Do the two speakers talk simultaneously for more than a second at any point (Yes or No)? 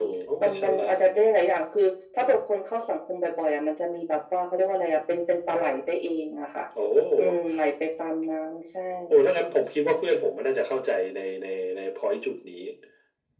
No